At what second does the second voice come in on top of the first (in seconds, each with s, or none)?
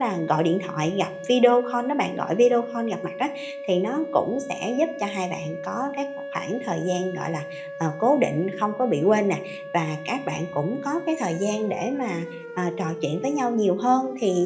none